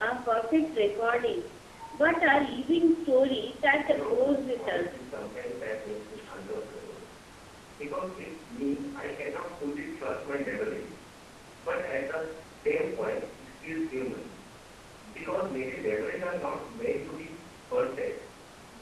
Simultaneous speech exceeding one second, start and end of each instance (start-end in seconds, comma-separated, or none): 3.8-5.1